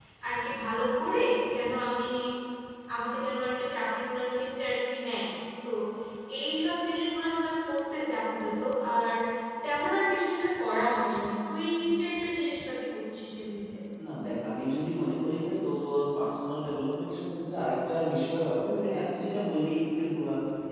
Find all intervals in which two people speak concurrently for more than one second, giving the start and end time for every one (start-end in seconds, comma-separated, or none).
none